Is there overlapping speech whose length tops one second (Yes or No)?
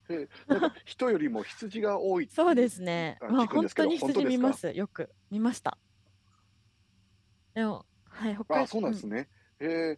Yes